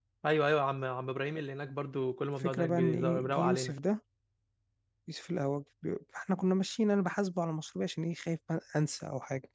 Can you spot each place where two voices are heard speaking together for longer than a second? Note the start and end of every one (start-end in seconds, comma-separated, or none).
2.4-3.7